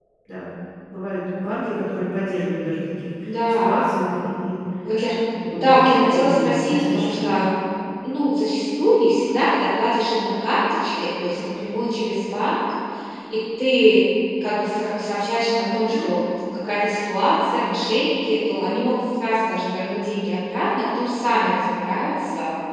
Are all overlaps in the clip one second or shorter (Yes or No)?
No